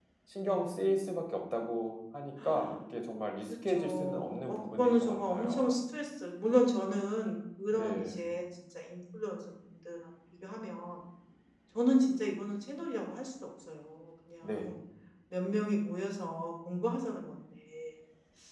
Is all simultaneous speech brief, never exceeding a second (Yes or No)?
No